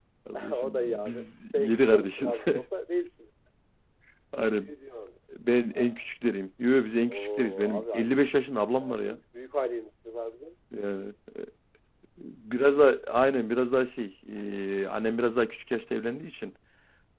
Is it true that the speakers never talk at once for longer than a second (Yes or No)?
No